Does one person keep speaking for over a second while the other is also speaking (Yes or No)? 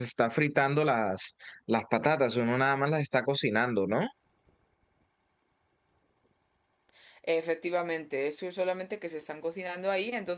No